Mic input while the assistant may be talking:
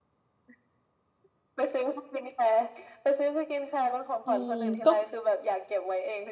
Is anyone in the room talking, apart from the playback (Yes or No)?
Yes